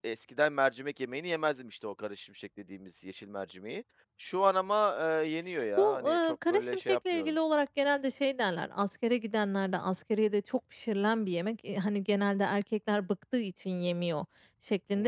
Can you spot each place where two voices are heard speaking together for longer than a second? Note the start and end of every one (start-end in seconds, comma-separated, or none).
5.8-7.3